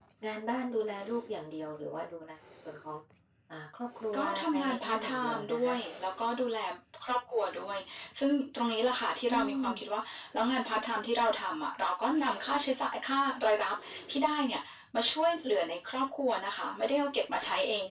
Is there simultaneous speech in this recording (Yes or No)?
Yes